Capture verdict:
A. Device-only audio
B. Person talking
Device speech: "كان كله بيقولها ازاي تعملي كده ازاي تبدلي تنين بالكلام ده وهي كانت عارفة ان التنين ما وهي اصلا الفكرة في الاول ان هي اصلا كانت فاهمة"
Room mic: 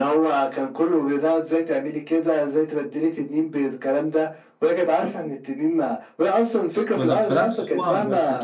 B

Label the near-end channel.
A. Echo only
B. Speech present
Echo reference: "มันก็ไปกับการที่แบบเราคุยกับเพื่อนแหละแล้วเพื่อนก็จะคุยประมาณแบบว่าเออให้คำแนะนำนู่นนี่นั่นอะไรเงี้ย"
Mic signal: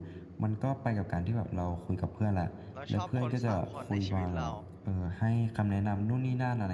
B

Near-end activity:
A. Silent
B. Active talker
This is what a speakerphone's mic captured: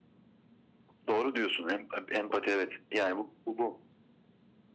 A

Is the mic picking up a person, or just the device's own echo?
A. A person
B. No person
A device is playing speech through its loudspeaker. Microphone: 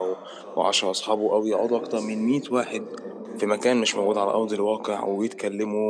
A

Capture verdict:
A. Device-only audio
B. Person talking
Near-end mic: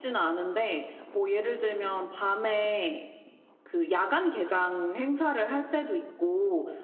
B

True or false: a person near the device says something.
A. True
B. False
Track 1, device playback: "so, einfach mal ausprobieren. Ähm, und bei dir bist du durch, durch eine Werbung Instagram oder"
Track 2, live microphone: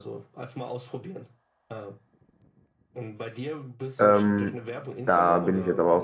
A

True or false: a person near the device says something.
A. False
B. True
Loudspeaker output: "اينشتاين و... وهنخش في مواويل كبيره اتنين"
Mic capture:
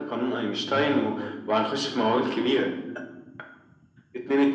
B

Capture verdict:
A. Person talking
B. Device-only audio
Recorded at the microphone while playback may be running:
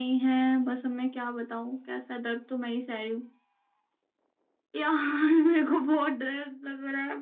B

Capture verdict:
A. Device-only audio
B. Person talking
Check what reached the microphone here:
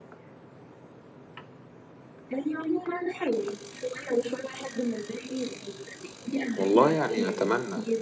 B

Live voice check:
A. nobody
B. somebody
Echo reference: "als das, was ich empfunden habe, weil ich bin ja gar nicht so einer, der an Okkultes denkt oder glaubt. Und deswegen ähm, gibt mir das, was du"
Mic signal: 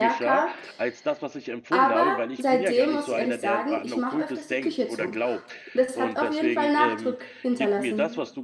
B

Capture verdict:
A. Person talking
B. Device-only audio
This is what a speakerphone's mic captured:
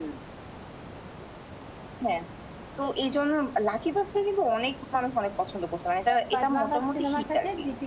A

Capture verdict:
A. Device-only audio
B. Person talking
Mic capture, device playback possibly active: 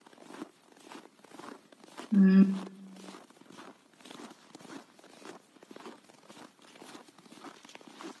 B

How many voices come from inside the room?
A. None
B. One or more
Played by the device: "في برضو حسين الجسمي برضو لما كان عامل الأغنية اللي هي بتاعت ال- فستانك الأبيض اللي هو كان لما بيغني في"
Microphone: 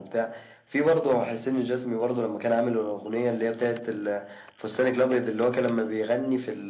A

